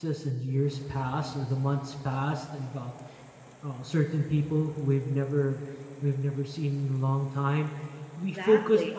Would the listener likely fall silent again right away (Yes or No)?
Yes